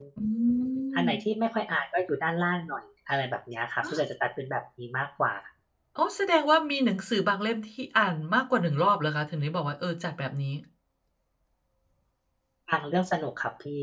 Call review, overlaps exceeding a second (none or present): none